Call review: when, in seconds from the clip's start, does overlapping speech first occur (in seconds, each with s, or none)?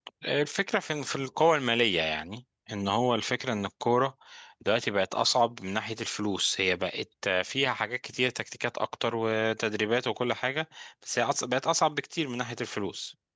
none